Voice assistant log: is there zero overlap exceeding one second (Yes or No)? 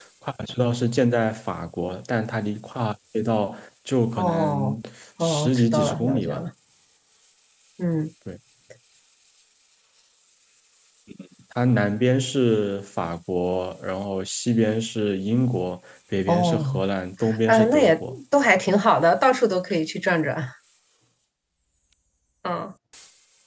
No